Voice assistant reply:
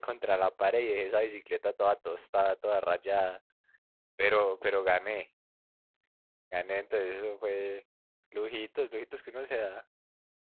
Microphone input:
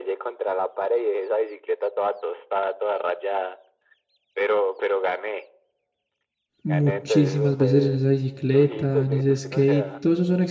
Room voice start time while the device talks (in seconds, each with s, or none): 6.6 s